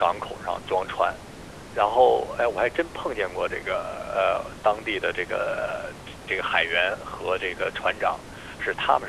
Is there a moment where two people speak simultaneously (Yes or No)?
No